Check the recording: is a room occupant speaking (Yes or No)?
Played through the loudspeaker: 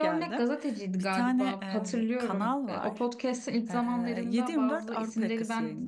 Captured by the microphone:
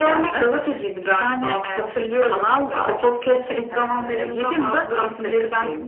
No